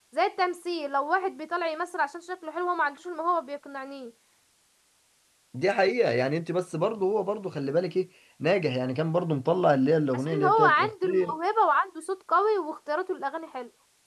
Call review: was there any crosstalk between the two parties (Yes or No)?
Yes